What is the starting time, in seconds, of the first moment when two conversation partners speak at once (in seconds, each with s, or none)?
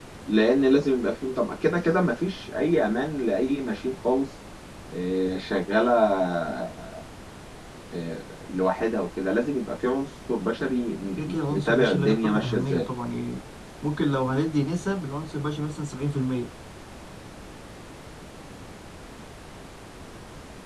11.2 s